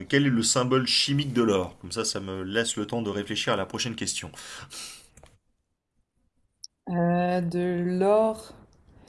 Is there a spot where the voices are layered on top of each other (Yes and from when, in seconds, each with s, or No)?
No